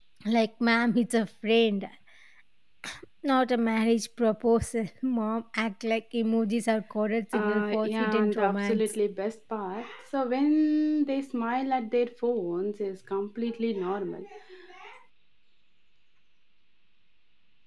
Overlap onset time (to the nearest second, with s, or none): 7 s